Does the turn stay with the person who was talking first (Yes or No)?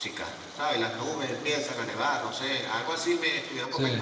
Yes